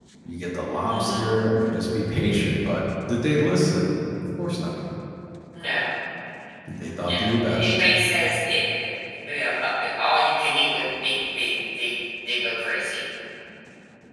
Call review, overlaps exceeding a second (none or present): none